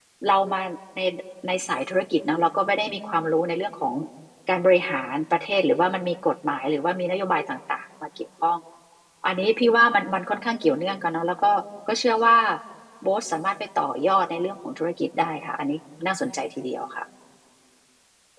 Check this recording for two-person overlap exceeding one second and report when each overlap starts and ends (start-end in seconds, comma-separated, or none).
none